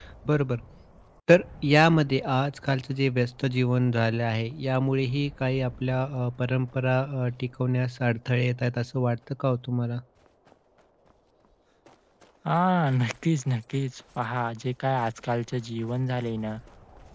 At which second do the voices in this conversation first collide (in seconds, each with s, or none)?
none